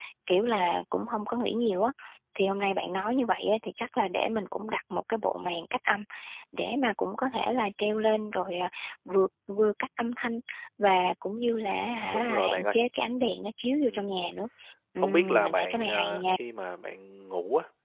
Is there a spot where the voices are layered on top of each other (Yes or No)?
Yes